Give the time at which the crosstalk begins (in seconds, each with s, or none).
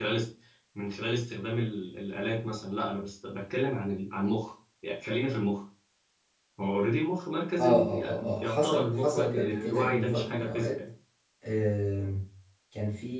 7.6 s